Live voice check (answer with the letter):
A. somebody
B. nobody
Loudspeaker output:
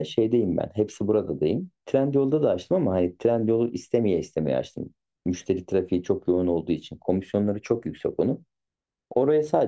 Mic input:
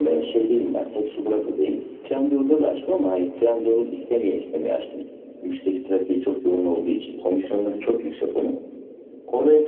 B